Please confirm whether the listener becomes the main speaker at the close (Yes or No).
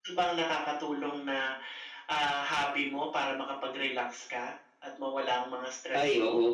Yes